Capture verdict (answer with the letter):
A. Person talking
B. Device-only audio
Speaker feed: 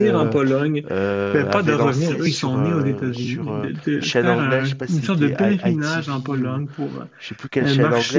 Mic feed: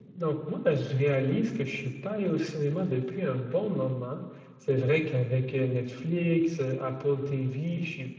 A